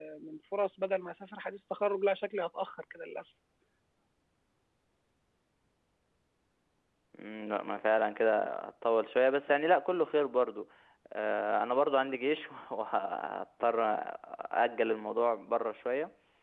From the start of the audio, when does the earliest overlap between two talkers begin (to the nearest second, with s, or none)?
none